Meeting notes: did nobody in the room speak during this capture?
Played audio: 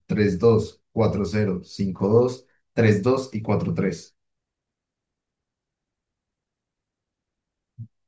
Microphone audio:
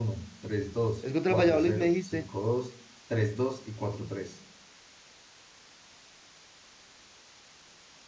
No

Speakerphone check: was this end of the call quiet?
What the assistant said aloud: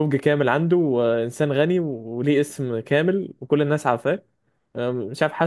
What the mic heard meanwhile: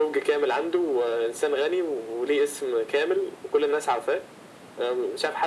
Yes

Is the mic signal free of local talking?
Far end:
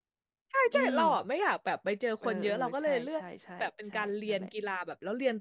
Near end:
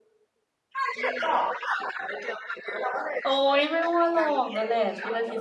No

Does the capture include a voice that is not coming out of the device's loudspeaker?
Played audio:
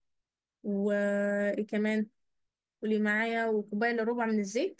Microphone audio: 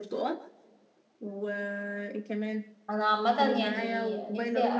Yes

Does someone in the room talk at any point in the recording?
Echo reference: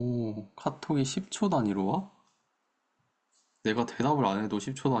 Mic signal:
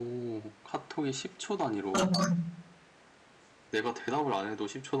Yes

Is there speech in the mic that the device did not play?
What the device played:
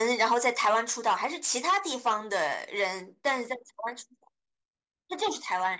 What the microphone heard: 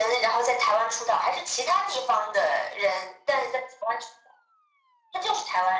No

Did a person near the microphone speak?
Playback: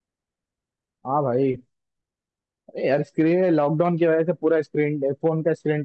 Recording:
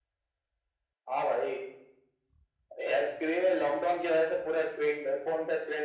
No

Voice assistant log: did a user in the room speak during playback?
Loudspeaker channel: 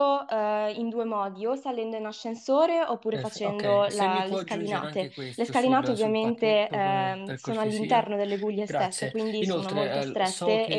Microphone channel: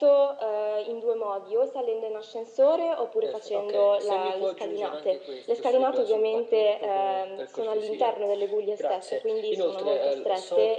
No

